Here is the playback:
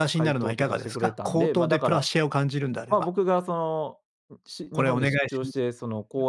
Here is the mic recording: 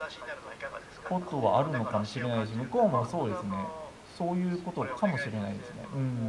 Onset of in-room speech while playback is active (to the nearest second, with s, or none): 1 s